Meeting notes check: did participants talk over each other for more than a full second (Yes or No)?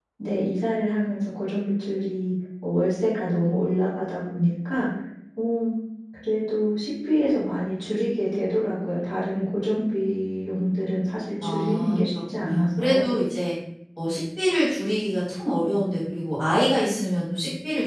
Yes